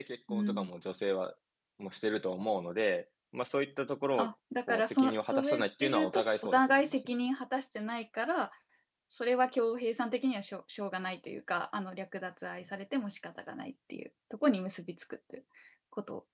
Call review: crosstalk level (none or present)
present